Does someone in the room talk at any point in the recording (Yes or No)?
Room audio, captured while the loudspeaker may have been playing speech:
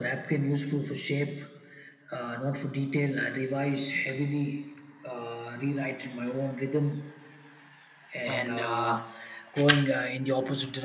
Yes